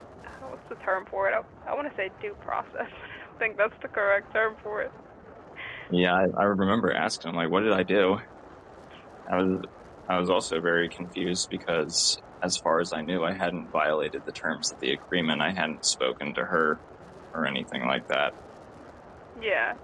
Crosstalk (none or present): none